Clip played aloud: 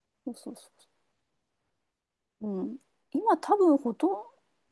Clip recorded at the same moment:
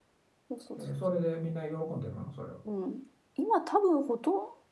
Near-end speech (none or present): present